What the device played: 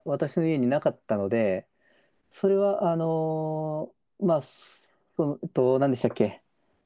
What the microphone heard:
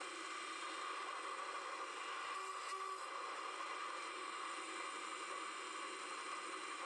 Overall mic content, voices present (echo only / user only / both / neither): neither